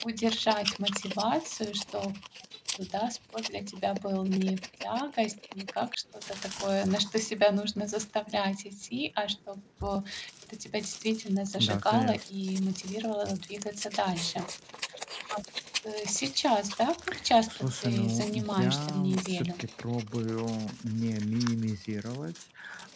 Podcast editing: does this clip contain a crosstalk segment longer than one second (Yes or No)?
Yes